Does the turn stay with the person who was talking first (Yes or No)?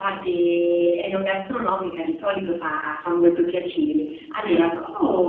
Yes